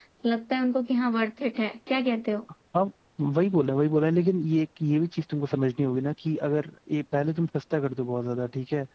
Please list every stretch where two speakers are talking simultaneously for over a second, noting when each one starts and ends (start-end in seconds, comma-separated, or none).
none